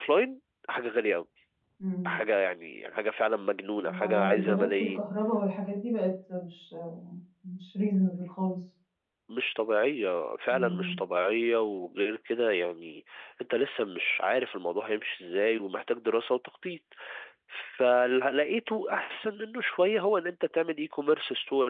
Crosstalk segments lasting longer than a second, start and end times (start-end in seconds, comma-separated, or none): 3.8-5.0